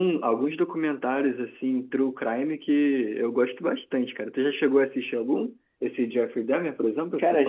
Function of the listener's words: taking over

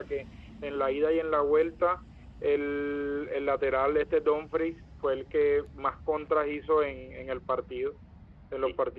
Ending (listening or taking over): listening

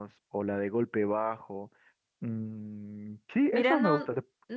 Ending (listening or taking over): taking over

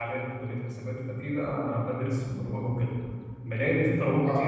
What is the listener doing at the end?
listening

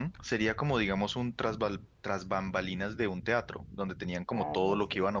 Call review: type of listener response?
listening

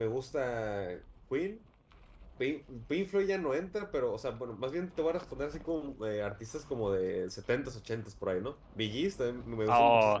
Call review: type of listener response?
taking over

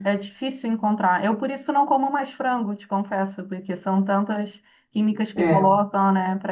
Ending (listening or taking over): listening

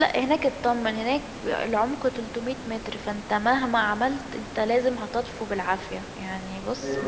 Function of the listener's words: listening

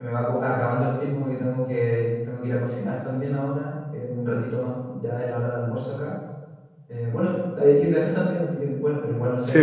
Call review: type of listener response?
listening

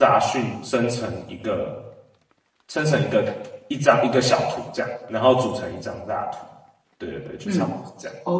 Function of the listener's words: taking over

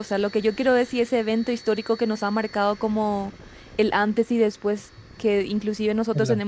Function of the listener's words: listening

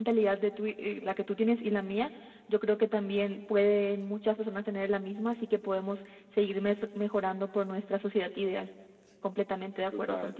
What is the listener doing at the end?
taking over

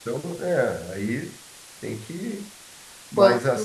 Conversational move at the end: listening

